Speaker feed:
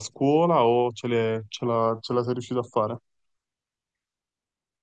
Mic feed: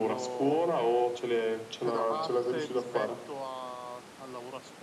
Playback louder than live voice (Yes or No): Yes